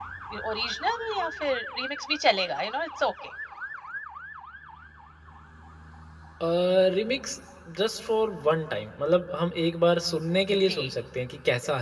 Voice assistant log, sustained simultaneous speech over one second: none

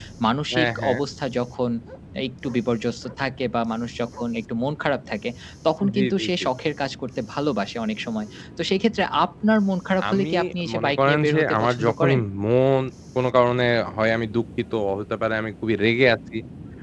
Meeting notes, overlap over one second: present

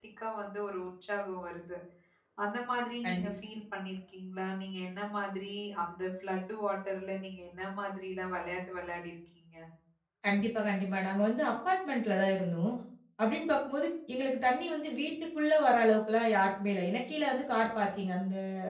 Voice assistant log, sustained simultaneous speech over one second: none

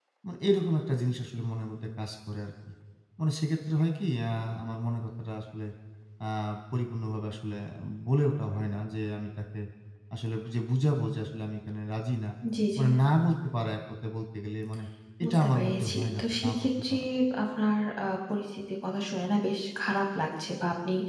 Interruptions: present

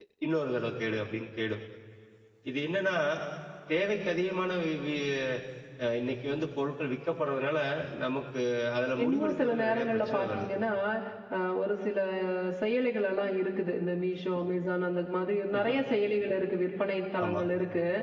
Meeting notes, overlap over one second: present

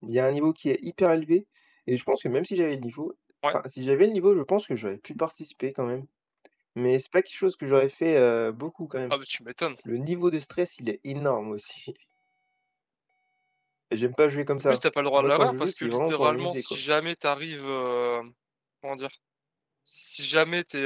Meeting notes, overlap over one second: present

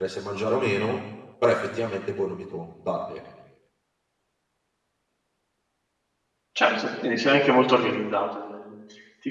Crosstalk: none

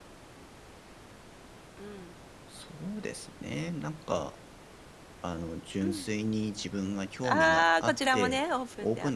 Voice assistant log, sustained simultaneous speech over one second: present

